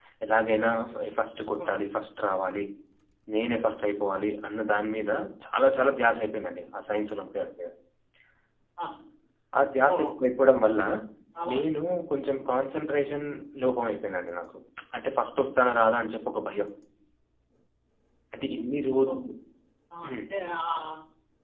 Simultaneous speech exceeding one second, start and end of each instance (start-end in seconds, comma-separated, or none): none